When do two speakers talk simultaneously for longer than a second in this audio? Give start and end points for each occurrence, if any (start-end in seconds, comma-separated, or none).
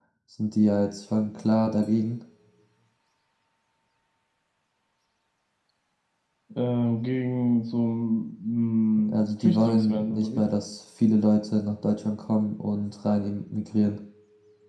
9.1-10.4